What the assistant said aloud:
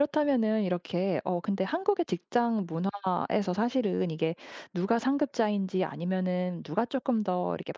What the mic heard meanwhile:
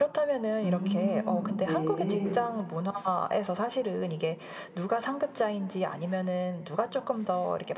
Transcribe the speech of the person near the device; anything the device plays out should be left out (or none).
음 네.